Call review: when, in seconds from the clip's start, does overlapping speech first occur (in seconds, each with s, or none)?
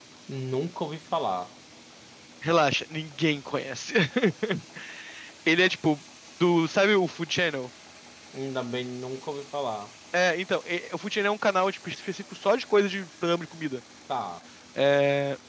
none